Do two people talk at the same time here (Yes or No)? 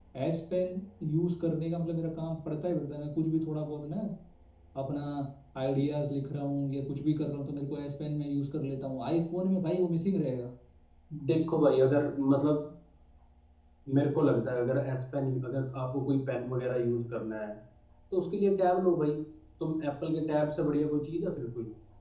No